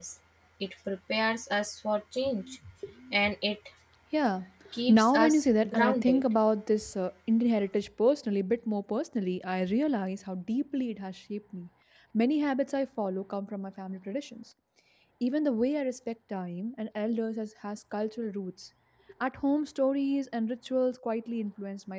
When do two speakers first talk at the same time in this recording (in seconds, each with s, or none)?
4.9 s